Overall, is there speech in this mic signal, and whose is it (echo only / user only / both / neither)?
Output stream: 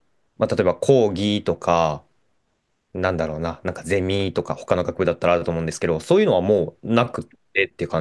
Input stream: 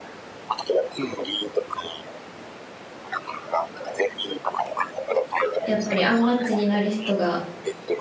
both